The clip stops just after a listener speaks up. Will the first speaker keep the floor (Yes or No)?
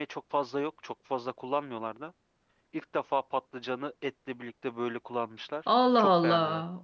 No